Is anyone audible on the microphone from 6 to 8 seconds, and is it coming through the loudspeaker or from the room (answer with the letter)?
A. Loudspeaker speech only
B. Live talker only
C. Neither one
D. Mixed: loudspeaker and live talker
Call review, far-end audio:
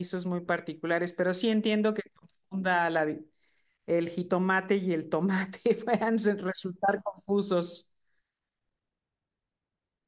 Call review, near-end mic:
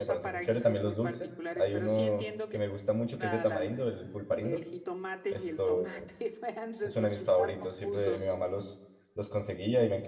D